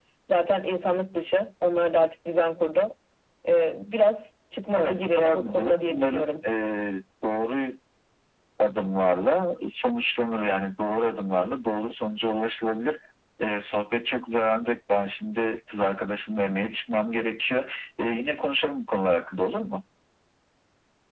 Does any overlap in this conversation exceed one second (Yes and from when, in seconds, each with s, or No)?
Yes, from 4.7 s